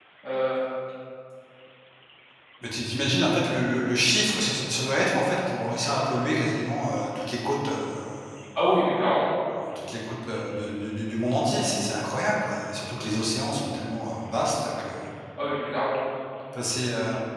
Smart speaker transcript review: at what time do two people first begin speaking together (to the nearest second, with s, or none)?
none